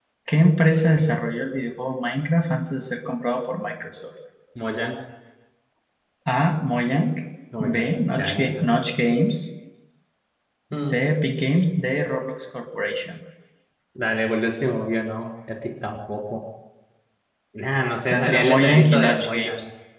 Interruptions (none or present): present